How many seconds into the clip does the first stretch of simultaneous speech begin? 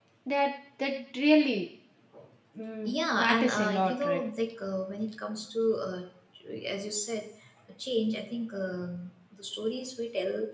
2.9 s

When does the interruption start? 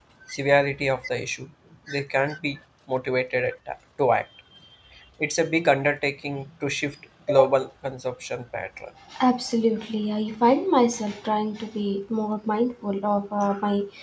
none

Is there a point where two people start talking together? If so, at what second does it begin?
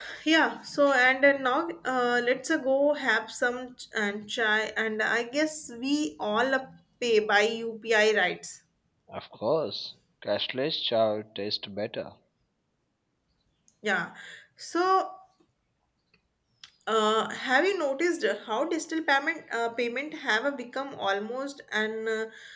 none

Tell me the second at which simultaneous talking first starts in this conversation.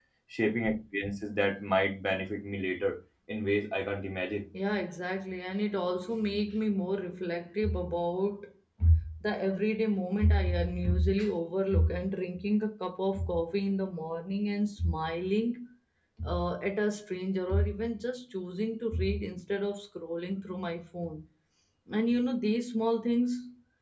none

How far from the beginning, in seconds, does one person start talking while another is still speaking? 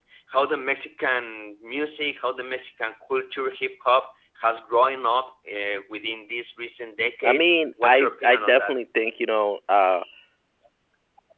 7.2 s

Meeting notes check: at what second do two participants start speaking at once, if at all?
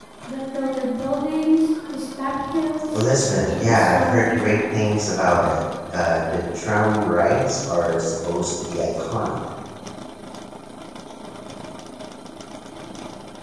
3.5 s

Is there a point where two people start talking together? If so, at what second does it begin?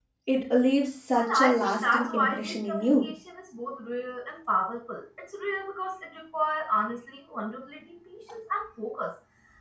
1.2 s

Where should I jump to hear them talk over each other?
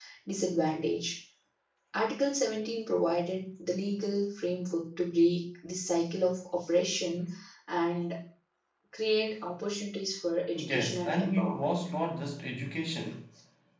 10.6 s

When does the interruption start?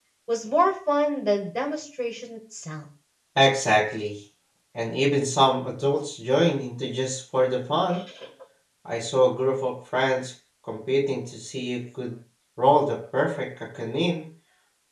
none

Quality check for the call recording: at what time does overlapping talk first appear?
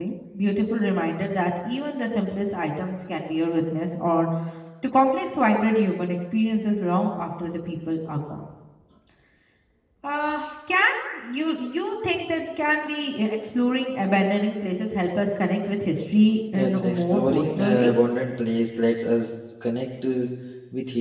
16.5 s

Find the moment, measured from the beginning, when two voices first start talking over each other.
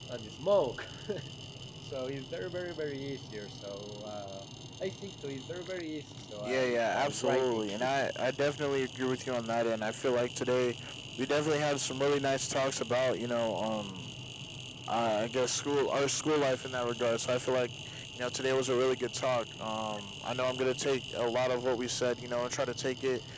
6.4 s

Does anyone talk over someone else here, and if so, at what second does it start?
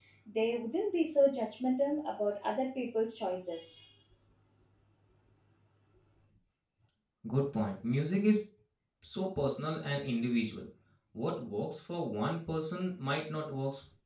none

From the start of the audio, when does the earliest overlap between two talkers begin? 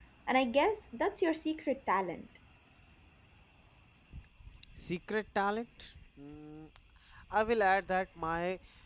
none

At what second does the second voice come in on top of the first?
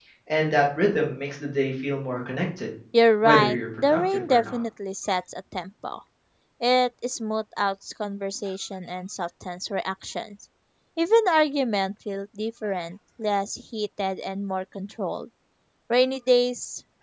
3.2 s

